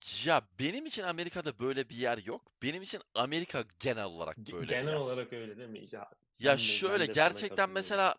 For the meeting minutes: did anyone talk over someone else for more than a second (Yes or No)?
Yes